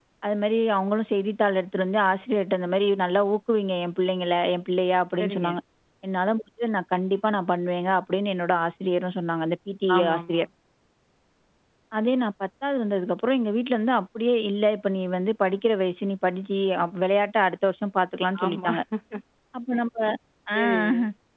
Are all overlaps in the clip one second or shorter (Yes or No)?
Yes